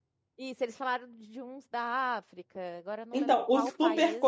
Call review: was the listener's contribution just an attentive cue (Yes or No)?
No